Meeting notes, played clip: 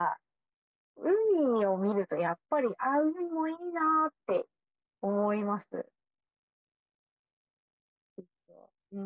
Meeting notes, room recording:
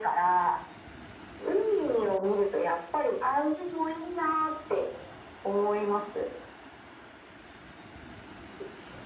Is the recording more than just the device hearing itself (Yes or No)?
No